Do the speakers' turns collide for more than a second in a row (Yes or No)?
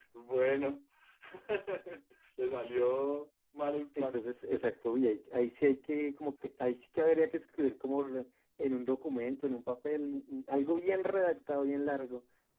No